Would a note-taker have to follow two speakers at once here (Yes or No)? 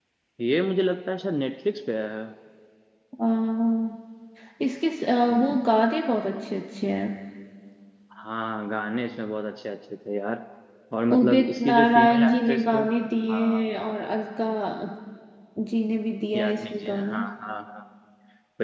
Yes